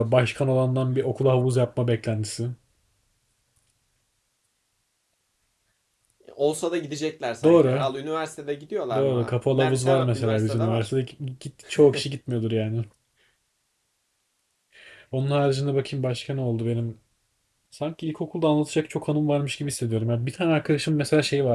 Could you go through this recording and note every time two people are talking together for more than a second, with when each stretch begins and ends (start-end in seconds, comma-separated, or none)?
8.9-10.9